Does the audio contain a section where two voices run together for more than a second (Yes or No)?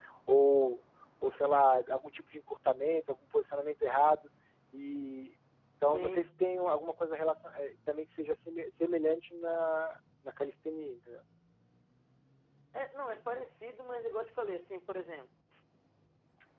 No